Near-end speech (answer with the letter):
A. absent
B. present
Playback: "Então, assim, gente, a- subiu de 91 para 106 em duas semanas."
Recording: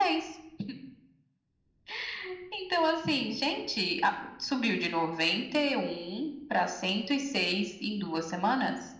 A